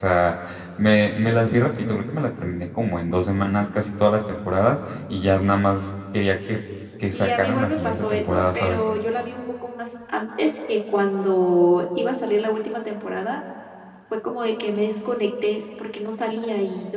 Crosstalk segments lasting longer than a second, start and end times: 7.1-8.8

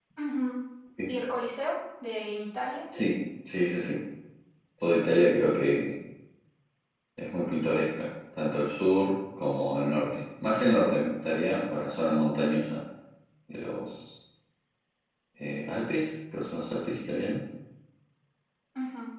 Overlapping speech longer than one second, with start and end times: none

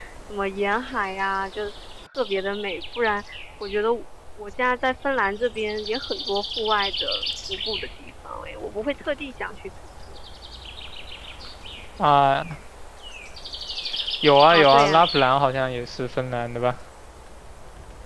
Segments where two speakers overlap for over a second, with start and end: none

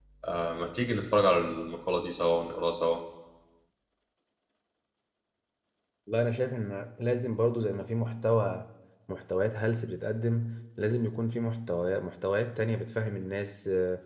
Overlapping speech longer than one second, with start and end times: none

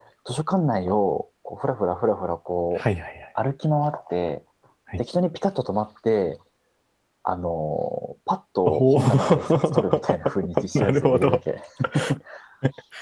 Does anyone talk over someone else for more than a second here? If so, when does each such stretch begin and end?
8.7-11.4

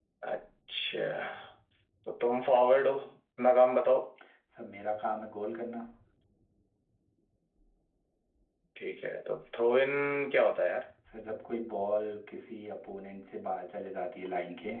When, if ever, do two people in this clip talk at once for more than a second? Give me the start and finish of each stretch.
none

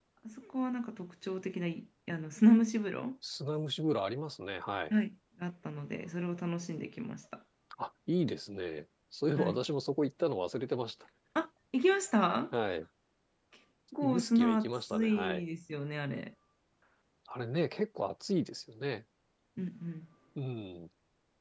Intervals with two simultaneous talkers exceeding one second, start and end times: 14.0-15.4

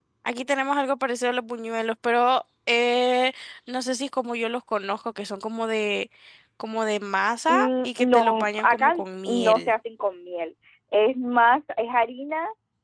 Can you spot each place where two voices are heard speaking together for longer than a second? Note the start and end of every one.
7.5-9.7

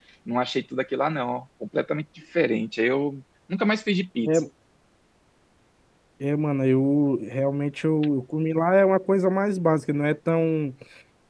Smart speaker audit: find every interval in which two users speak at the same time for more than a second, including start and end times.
none

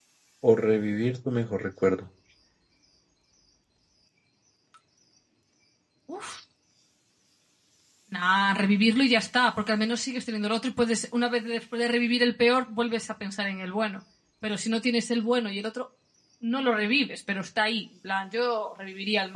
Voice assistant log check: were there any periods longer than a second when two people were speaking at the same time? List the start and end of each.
none

